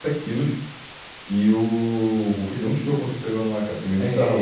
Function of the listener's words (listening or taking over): taking over